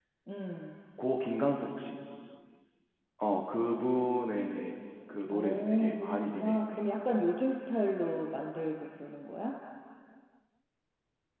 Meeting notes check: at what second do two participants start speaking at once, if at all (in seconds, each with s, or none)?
5.3 s